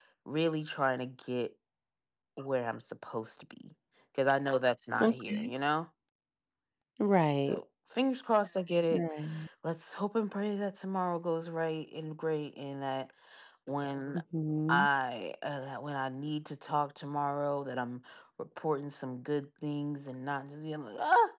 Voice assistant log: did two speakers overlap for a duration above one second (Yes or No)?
No